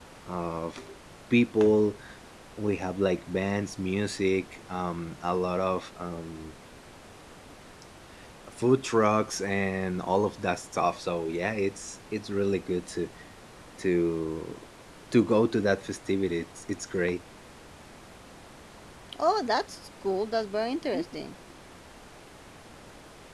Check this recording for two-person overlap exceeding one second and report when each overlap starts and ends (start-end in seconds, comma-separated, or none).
none